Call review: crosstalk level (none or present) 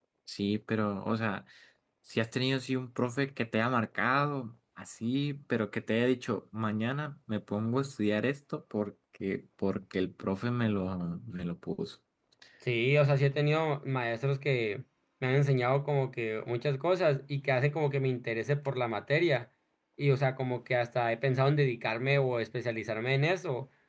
none